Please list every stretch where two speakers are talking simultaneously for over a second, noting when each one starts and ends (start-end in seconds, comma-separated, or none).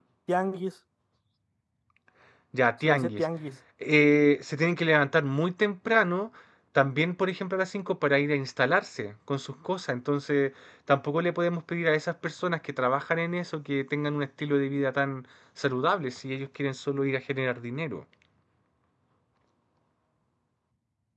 none